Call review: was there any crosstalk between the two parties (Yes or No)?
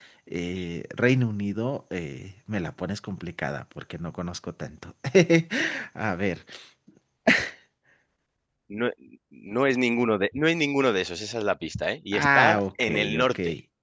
Yes